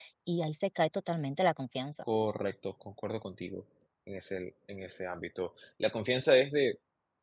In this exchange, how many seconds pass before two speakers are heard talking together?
none

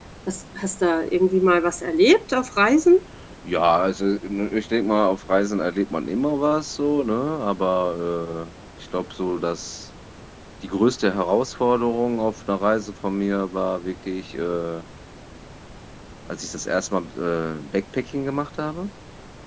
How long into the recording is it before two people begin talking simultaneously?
none

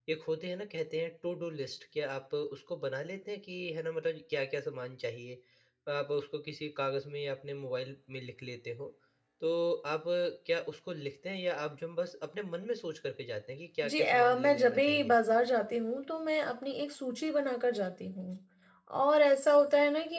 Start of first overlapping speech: 13.8 s

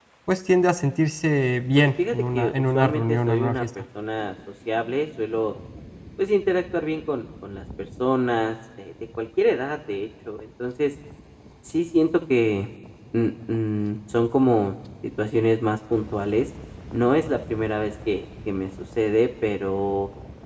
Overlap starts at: 1.8 s

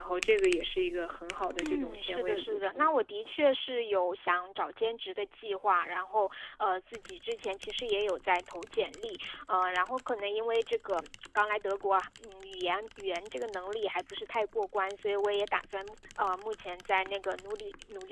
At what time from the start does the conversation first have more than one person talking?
1.6 s

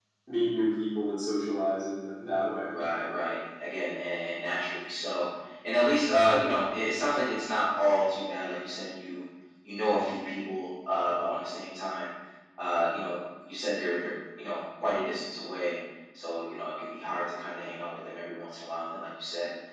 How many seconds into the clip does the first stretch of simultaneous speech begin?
none

